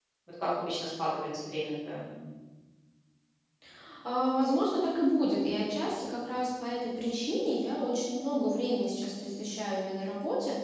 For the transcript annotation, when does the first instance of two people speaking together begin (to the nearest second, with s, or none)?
none